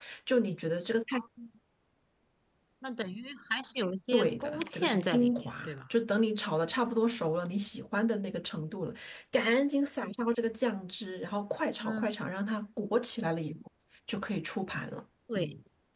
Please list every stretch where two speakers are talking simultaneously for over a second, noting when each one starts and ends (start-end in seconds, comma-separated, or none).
4.1-5.5